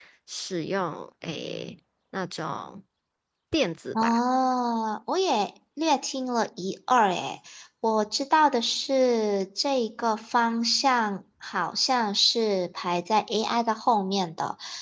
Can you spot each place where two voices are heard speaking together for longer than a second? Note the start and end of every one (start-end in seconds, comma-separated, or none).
none